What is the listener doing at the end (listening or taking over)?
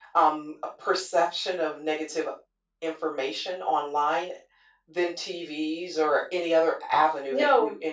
taking over